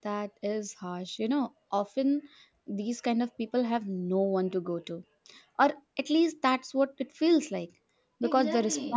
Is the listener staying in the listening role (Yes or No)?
Yes